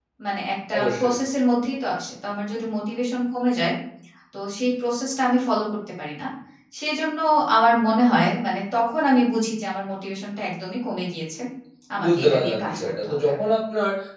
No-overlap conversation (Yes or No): No